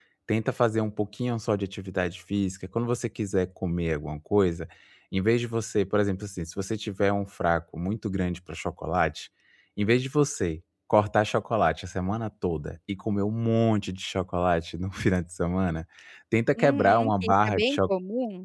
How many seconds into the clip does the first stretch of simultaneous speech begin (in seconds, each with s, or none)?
16.6 s